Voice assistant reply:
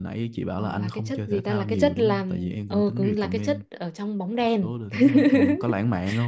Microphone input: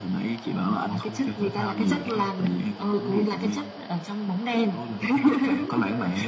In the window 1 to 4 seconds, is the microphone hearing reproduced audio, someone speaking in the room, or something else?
echo only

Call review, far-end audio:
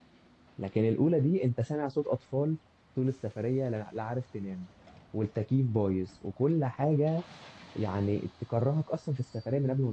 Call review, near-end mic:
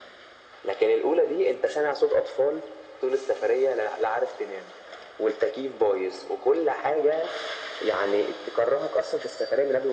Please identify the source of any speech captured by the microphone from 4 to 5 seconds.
echo only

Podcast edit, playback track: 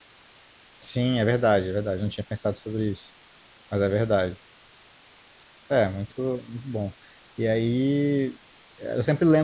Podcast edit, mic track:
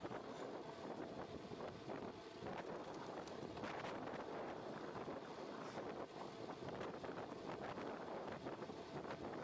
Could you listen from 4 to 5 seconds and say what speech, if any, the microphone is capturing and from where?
neither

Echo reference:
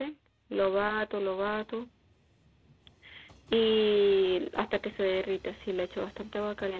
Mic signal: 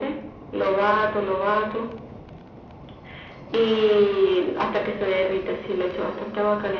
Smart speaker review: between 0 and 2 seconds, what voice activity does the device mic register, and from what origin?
echo only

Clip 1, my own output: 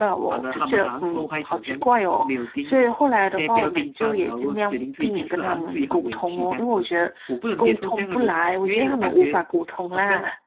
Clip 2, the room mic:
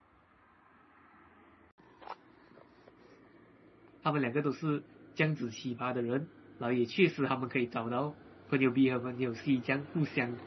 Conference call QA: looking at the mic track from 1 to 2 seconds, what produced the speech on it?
neither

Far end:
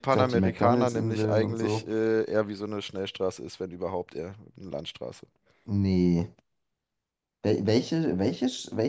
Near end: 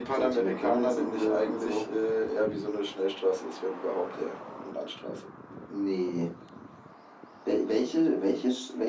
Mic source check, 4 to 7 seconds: echo only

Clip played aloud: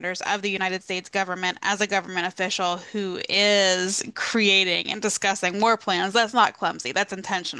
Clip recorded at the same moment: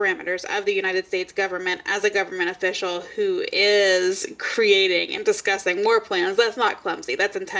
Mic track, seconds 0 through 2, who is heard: echo only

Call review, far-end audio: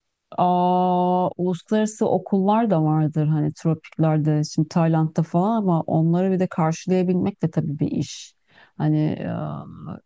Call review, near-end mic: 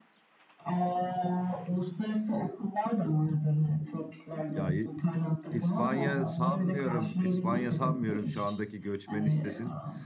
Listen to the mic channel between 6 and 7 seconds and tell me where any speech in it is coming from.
both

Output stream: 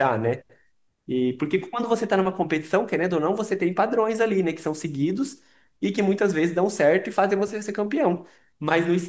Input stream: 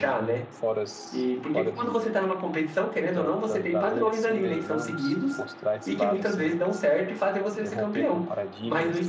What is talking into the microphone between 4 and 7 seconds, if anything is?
both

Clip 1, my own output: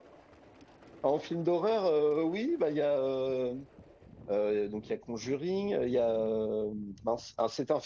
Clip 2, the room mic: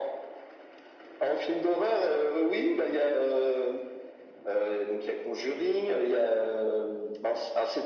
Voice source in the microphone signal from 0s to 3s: echo only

